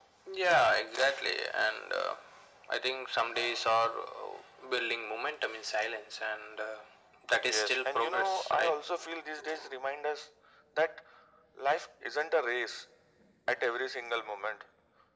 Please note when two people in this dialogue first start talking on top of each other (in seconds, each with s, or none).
7.4 s